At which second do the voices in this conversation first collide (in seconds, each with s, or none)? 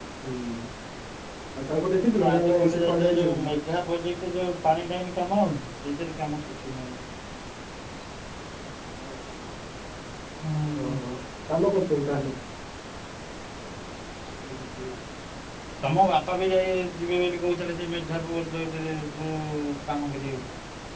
2.1 s